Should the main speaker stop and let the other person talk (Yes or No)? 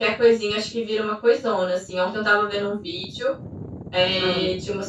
No